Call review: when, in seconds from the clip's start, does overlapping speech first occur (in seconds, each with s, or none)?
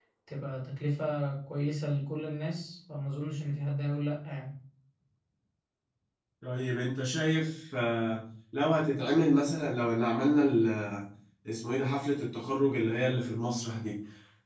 none